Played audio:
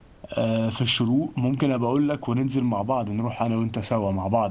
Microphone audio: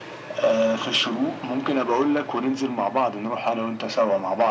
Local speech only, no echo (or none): none